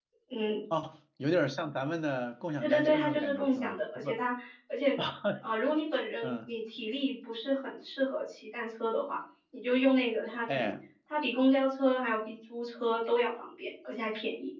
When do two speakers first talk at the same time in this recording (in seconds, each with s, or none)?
2.6 s